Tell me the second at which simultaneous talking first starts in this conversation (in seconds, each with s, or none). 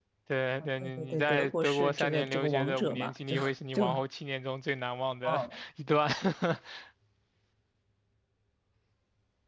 0.8 s